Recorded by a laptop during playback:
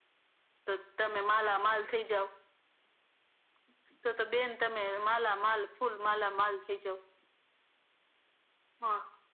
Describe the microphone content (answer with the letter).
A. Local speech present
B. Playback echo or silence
B